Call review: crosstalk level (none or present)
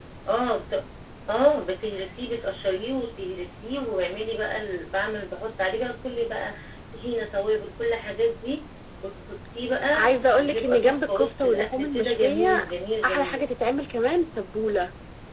present